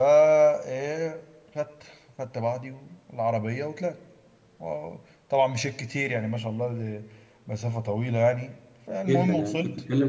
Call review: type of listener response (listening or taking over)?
taking over